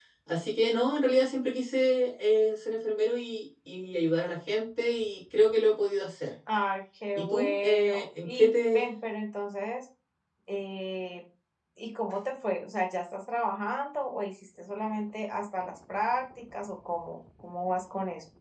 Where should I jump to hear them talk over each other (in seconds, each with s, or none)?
7.2 s